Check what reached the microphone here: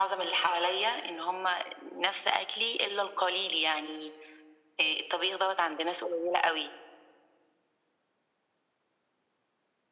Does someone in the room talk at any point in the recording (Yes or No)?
No